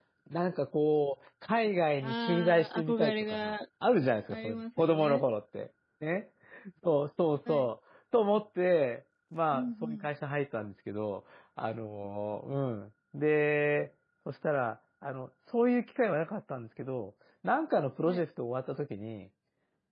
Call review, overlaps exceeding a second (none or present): present